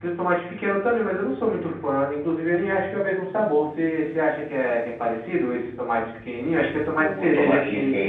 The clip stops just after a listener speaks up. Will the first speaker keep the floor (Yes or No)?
No